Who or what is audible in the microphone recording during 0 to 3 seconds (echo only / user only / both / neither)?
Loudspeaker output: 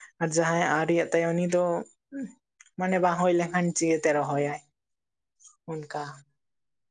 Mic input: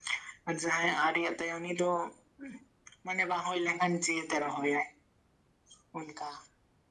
echo only